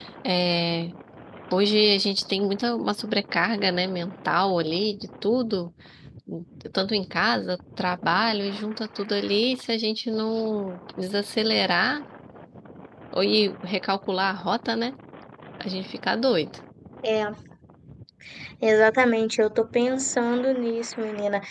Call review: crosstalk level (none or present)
none